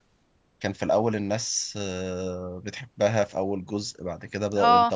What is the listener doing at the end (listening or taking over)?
listening